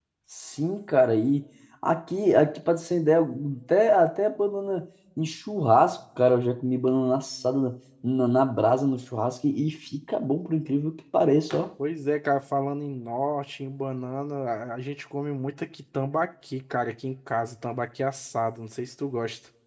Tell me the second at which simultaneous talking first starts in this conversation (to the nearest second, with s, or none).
none